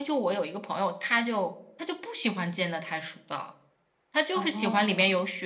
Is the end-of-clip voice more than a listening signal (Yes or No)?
No